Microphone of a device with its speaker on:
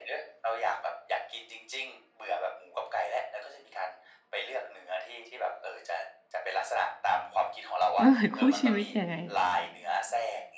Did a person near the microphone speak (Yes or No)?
Yes